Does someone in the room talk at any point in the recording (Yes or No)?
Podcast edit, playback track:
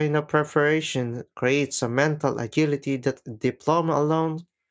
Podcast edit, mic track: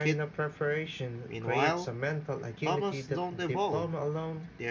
Yes